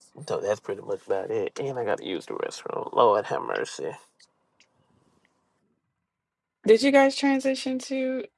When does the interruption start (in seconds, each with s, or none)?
none